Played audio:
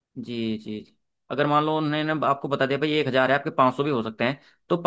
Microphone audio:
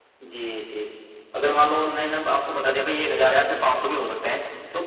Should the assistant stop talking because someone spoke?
No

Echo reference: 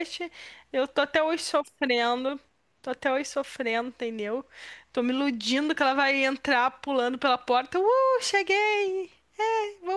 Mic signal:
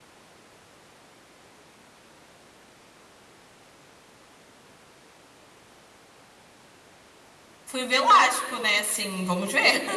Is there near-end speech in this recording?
Yes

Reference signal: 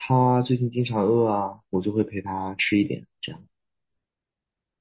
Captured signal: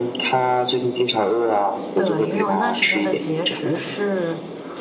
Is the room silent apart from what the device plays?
No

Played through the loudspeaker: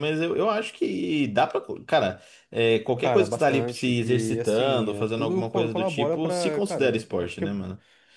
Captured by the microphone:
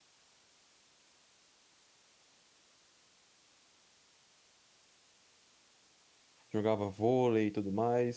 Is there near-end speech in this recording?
Yes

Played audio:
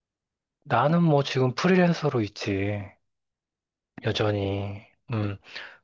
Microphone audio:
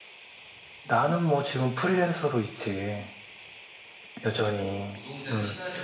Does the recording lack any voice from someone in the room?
No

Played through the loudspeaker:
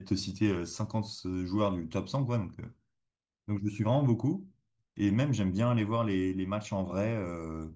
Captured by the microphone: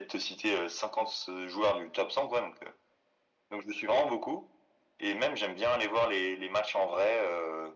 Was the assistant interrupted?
No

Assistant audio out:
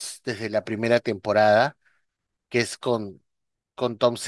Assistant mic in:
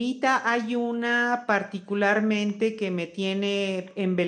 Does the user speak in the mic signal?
Yes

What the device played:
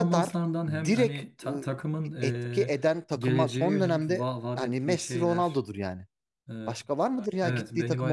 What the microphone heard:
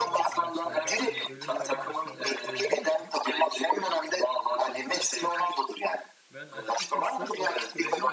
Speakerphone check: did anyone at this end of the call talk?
Yes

